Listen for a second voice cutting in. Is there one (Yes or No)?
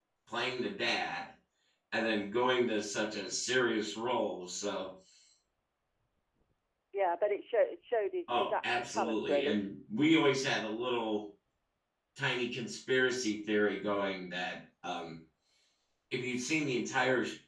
Yes